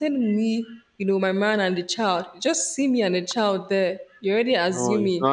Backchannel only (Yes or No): No